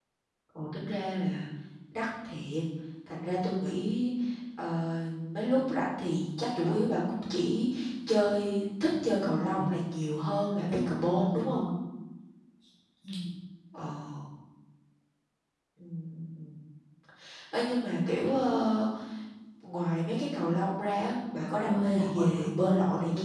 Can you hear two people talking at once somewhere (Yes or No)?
Yes